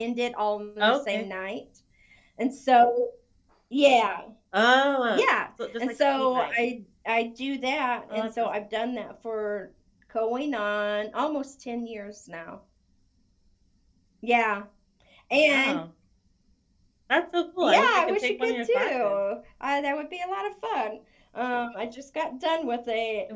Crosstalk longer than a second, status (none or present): present